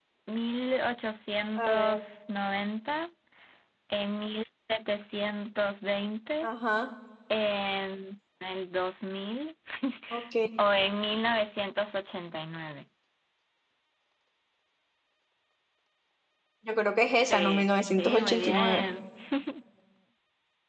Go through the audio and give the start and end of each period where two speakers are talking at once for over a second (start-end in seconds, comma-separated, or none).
17.2-18.9